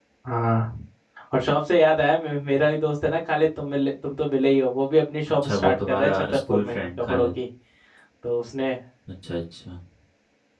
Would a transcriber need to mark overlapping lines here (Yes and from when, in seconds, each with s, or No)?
Yes, from 5.4 s